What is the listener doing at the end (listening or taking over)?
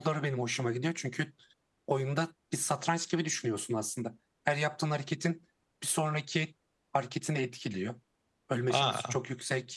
listening